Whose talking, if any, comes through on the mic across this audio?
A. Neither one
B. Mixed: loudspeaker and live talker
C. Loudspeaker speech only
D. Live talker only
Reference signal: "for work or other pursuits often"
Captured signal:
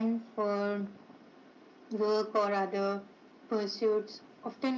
C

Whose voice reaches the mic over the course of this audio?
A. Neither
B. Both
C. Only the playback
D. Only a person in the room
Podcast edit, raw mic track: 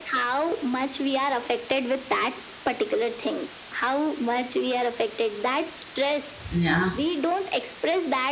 B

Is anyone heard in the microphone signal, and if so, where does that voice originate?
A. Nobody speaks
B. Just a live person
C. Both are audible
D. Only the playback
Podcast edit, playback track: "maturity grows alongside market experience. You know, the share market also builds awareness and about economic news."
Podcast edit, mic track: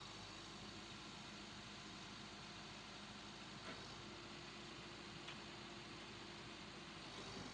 A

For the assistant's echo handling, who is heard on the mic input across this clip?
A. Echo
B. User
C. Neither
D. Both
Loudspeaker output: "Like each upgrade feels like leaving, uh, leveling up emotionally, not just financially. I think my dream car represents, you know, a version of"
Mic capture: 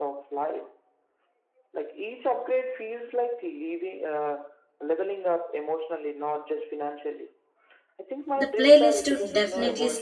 D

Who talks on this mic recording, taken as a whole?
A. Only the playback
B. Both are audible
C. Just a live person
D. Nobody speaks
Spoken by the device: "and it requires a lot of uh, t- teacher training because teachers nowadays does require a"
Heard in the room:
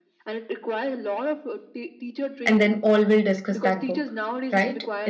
B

